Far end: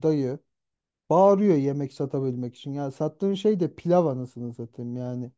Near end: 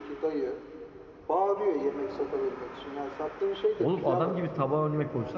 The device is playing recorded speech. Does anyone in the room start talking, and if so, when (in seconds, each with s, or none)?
3.8 s